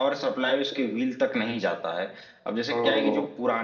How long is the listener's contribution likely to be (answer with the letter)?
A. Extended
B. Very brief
B